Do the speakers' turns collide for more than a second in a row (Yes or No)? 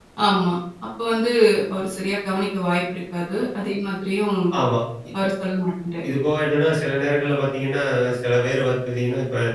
No